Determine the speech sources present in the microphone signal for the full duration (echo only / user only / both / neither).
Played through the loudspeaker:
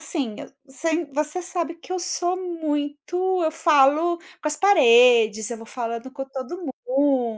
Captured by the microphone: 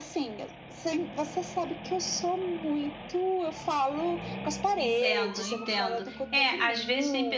both